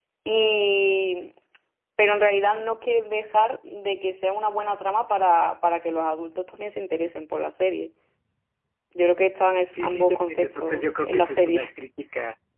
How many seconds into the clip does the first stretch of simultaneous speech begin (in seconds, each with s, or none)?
9.8 s